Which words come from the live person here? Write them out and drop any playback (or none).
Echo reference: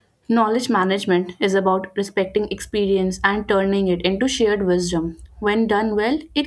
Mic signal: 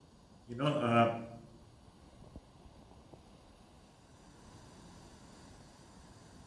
You know, uh,